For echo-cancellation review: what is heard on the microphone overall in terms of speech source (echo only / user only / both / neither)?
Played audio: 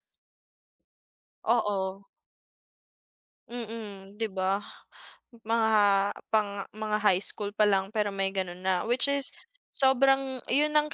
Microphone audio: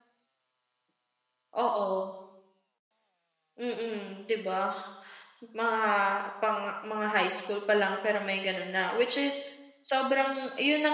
echo only